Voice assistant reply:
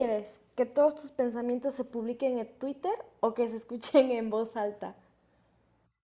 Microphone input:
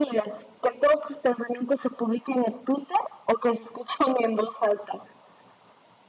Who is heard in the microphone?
echo only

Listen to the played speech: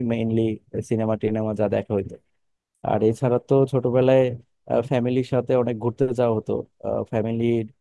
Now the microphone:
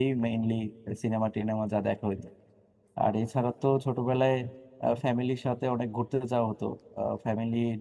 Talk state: echo only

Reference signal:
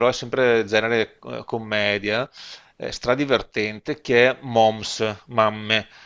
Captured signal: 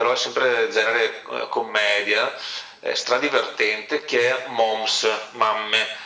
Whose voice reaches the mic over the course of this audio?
echo only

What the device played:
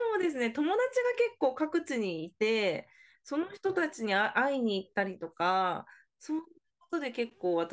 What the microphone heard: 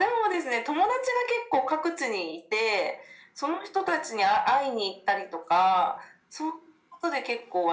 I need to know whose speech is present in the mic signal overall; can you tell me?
echo only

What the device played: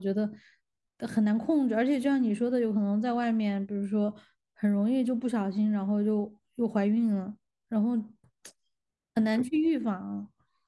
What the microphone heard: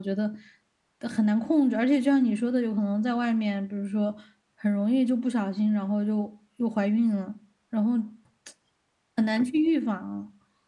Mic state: echo only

